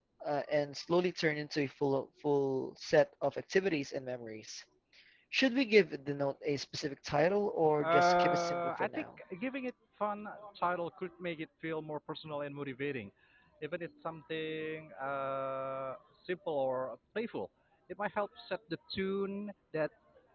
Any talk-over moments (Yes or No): Yes